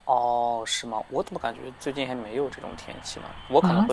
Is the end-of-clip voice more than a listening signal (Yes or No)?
Yes